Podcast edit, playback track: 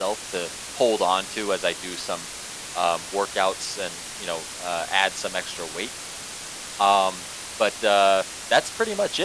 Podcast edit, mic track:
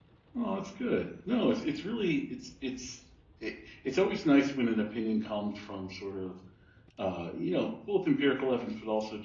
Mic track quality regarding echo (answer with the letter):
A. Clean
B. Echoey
A